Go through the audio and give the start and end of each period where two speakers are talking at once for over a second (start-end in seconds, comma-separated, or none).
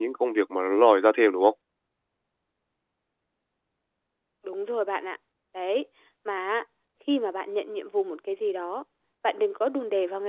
none